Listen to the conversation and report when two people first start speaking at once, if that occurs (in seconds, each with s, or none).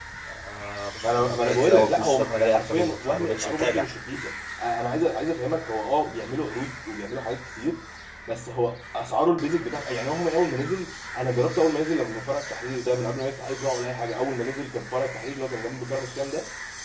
1.0 s